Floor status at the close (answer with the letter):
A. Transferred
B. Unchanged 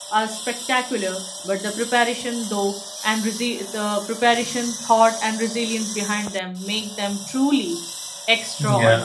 A